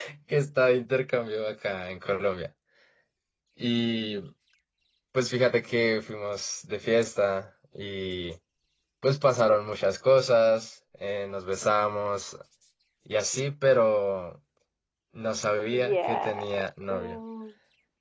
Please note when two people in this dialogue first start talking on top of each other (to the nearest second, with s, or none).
16 s